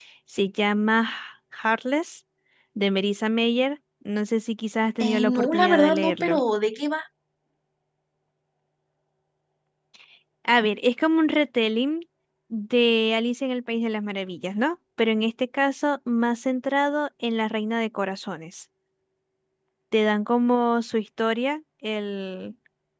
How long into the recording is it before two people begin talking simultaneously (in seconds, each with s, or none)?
5.0 s